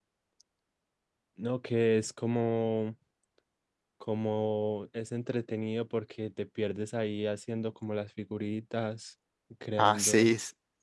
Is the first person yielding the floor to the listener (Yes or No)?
Yes